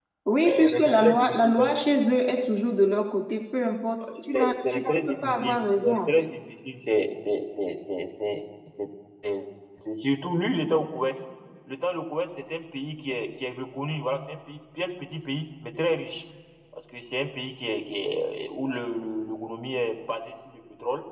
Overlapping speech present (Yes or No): Yes